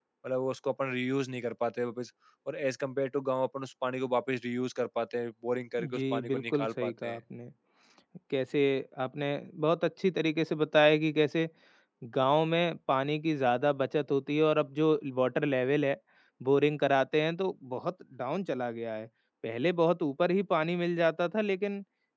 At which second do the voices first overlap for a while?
5.8 s

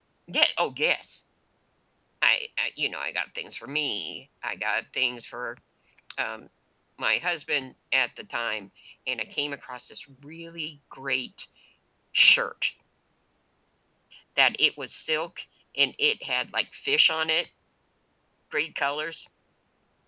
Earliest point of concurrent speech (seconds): none

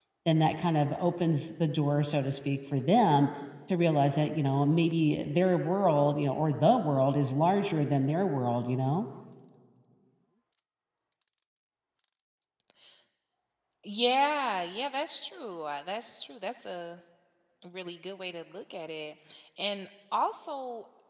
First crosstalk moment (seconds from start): none

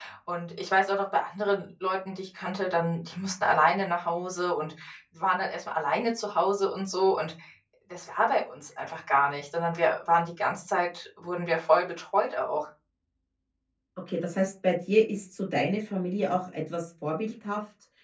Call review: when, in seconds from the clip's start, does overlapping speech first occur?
none

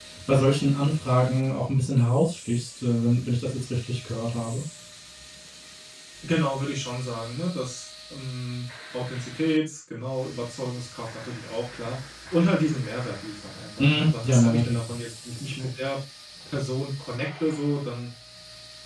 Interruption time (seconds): 13.8 s

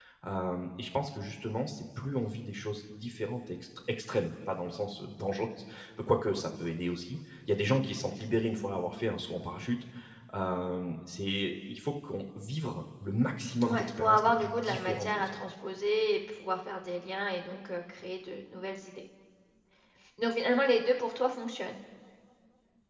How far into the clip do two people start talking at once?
13.6 s

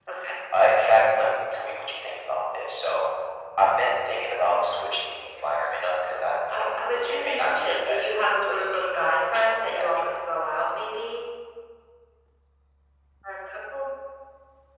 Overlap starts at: 6.5 s

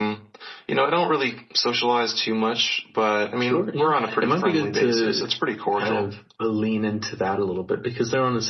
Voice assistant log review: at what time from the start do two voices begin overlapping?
3.4 s

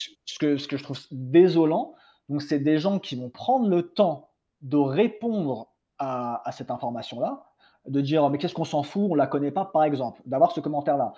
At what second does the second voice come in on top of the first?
none

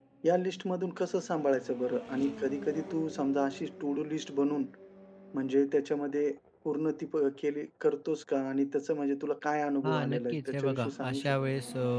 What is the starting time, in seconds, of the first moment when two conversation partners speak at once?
9.8 s

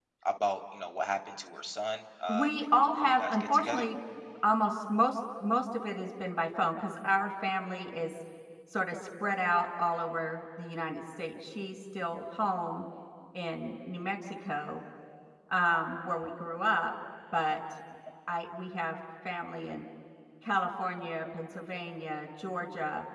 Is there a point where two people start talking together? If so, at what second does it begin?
2.3 s

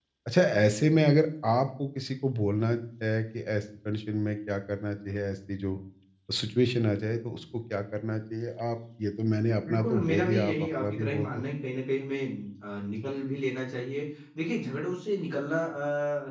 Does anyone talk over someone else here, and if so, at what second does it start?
9.7 s

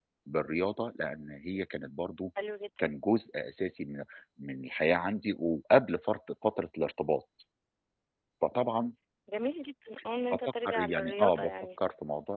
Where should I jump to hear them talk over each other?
10.3 s

